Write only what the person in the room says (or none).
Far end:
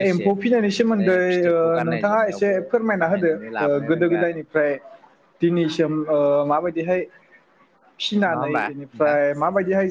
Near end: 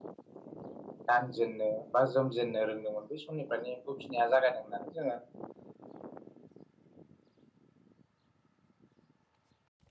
गानजेन्नो बा जोमजेननो रोंदोंमोन बै समनिफ्रायनो एम्फौ फिनाया जागायदों होननानै जोङो